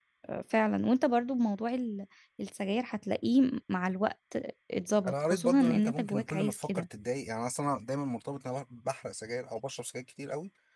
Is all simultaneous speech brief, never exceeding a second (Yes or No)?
No